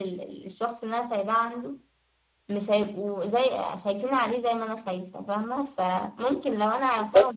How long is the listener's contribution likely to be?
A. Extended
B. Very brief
B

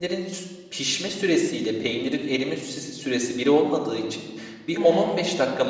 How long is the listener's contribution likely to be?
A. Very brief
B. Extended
A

